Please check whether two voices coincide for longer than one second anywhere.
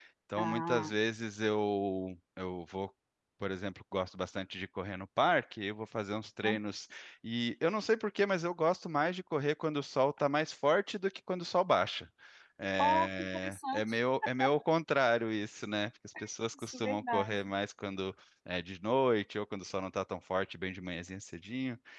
Yes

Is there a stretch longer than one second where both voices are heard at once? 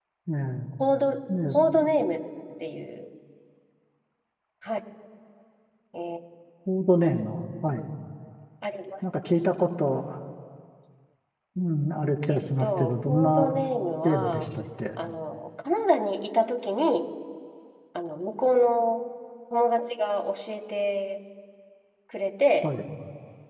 Yes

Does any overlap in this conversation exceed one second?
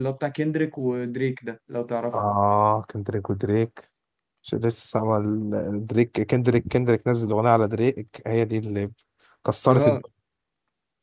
No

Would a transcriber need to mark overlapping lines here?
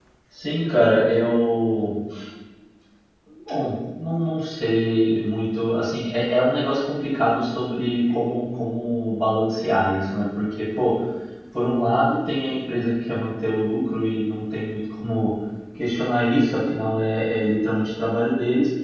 No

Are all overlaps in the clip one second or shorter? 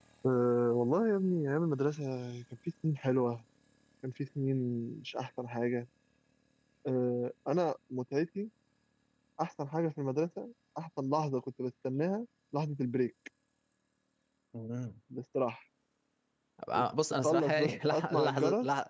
No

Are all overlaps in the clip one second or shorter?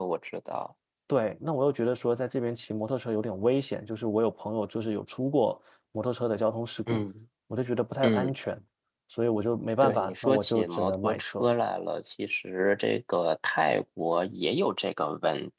No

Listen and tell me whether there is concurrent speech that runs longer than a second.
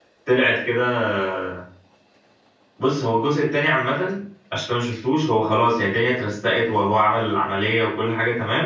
No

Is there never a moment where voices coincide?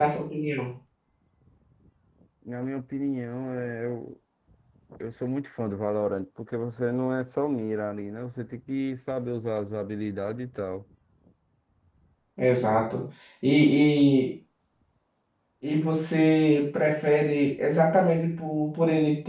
Yes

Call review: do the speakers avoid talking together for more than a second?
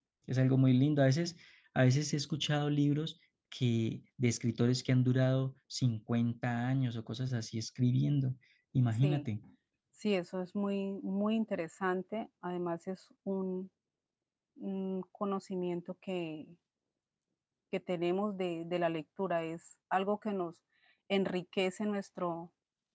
Yes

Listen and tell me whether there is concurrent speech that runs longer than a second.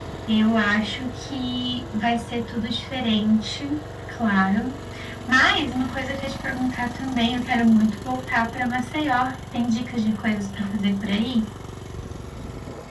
No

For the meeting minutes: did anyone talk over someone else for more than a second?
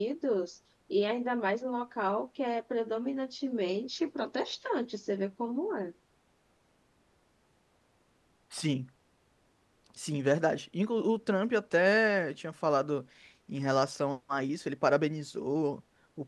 No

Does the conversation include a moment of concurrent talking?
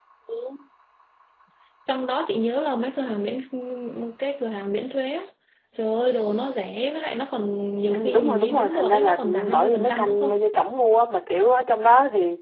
Yes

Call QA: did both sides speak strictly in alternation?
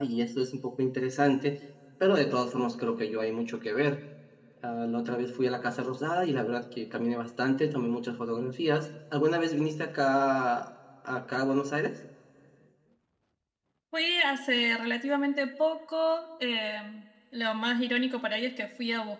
Yes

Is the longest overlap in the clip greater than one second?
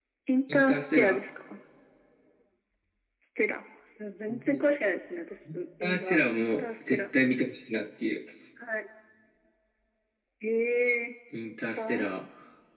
Yes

